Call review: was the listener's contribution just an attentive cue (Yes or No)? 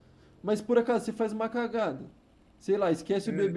Yes